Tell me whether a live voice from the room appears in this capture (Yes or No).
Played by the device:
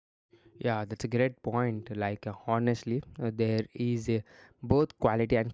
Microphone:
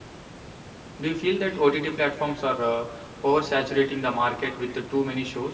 Yes